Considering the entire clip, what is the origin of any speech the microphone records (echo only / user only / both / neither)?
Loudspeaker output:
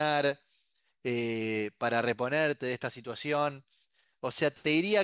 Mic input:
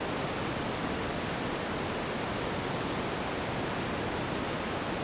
neither